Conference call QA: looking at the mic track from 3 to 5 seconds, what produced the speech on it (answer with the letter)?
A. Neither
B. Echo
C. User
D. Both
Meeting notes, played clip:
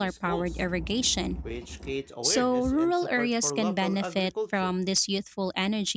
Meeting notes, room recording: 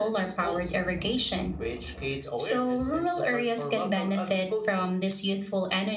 B